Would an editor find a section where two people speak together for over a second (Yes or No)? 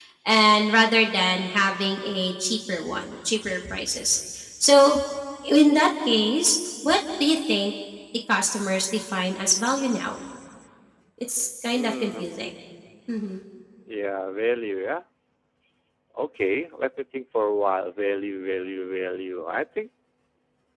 No